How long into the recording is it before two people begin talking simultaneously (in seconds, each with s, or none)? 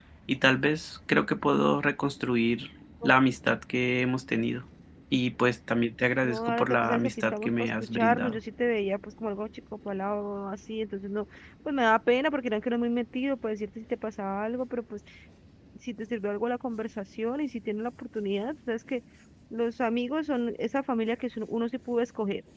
6.2 s